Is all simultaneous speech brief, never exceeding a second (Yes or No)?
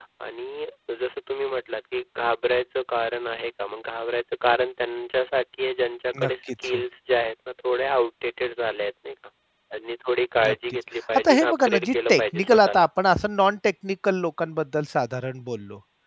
No